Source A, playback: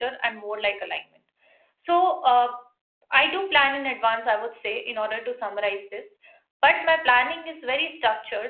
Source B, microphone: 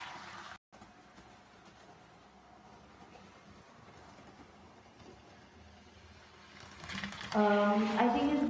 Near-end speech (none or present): present